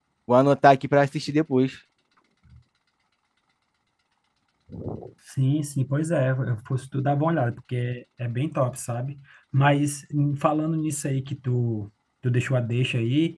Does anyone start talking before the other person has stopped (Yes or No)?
No